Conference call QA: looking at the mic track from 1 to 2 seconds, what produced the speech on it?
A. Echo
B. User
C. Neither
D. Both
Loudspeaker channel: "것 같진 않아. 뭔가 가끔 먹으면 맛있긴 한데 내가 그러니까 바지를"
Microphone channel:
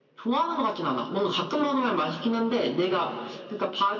A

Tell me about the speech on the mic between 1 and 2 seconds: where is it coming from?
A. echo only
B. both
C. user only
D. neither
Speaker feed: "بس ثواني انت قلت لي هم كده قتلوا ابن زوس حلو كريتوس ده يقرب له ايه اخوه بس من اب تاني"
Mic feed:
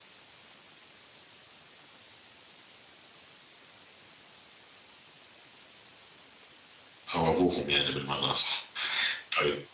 D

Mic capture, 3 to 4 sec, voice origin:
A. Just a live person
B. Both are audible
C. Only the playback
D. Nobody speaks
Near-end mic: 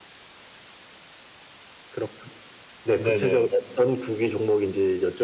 B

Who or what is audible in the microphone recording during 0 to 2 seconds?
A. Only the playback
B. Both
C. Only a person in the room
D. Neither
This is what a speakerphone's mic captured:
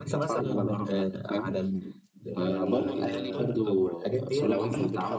A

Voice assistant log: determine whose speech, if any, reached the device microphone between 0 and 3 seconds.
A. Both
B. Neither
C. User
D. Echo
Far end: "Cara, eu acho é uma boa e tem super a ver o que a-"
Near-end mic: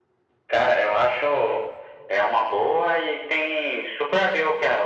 D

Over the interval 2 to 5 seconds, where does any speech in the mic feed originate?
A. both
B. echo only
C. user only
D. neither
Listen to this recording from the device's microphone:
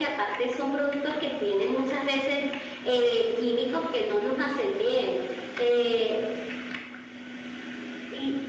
B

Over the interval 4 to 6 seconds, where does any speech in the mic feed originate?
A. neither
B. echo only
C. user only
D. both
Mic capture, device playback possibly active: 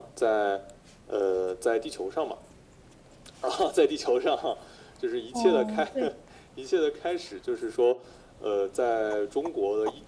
D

